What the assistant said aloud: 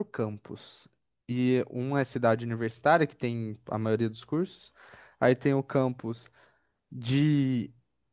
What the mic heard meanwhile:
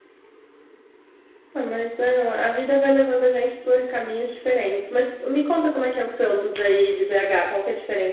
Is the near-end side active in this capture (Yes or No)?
Yes